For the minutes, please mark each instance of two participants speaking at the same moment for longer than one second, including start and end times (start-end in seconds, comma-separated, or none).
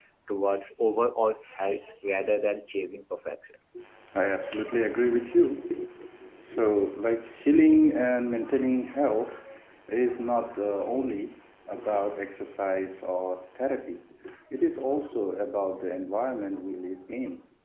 none